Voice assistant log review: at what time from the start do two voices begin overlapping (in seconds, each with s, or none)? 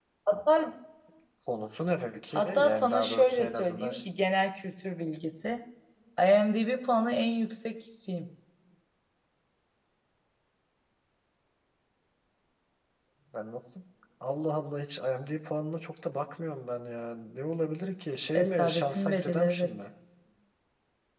2.4 s